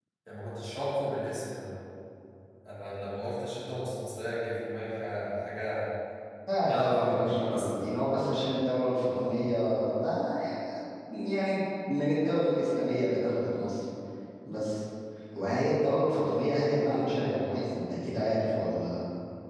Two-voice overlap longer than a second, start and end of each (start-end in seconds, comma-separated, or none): 6.6-8.1